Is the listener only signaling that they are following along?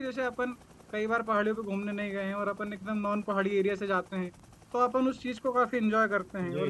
Yes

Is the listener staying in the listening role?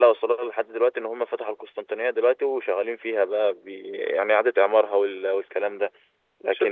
No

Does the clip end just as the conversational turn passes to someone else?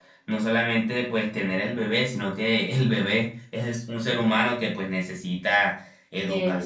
No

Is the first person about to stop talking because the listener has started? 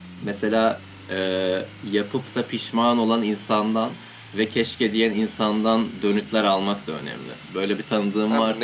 Yes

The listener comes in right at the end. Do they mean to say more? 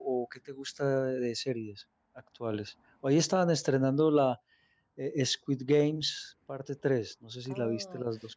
Yes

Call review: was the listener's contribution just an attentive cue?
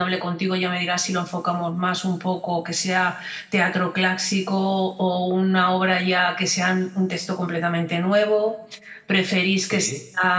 Yes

